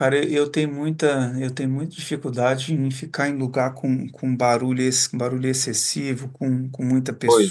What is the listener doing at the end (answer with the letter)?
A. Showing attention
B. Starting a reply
A